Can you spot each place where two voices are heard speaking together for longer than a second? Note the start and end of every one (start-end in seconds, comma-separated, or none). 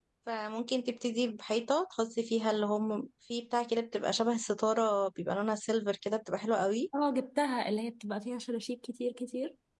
none